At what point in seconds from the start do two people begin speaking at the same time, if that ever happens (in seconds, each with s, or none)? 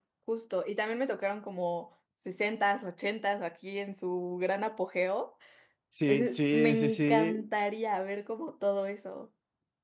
6.1 s